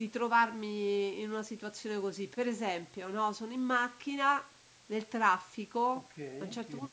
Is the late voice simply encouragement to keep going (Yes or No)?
Yes